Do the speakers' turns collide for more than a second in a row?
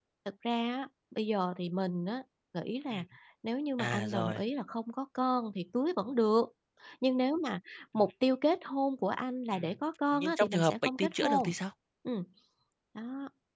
Yes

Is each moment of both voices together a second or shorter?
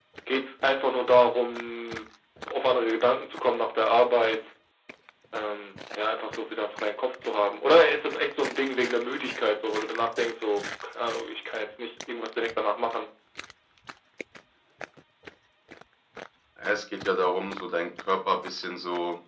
Yes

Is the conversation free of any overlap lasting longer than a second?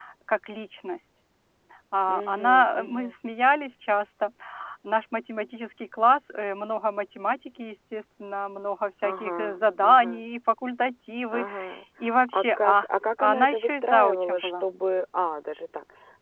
No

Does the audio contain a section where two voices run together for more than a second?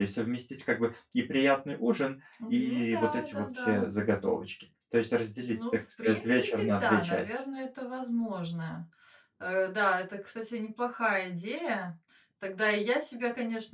Yes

